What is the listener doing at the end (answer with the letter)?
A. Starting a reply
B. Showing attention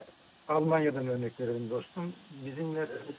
B